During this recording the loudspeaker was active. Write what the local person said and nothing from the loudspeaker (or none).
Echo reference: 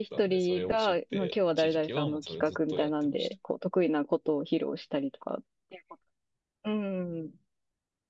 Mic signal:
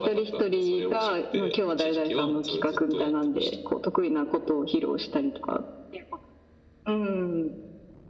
none